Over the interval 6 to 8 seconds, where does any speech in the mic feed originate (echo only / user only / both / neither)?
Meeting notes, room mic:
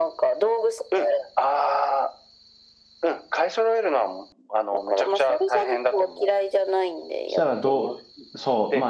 both